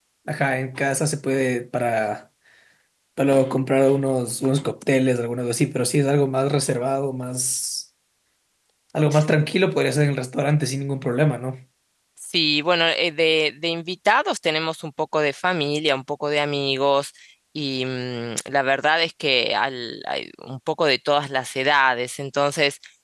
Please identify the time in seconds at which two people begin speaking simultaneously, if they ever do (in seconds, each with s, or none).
none